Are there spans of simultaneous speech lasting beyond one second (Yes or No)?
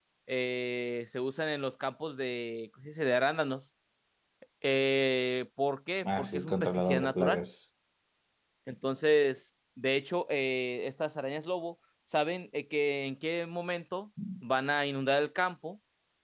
Yes